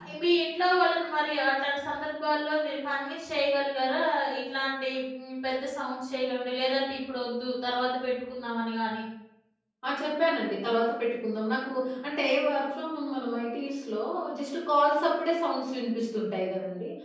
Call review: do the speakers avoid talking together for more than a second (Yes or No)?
Yes